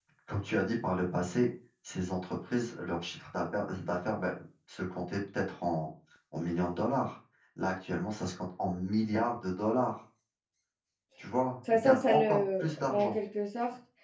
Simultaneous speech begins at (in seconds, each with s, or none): 11.7 s